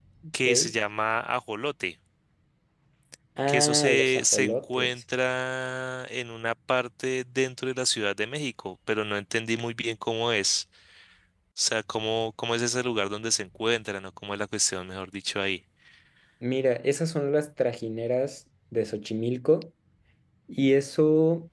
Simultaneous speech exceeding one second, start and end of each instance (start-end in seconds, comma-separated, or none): 3.5-4.9